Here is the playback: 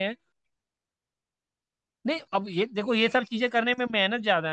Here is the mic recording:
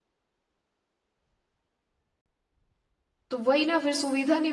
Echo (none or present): none